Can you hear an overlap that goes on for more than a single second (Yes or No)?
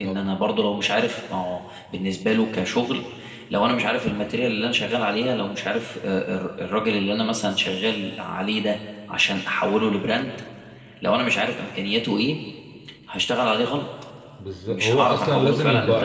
Yes